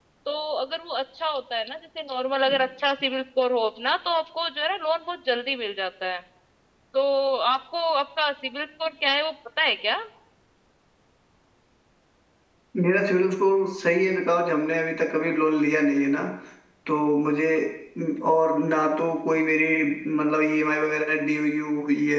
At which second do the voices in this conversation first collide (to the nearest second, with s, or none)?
none